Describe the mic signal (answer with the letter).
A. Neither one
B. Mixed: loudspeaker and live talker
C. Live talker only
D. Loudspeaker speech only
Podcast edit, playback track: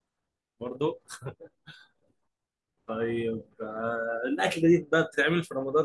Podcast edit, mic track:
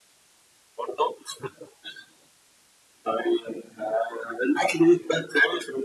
D